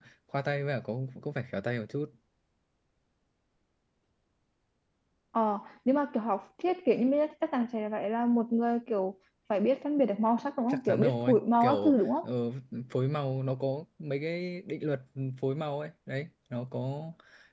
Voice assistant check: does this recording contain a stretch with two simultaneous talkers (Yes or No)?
Yes